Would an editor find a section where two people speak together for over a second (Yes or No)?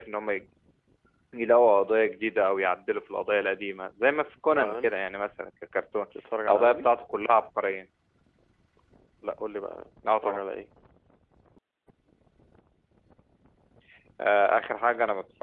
No